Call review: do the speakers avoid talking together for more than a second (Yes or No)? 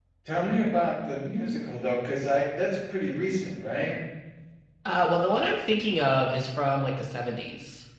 Yes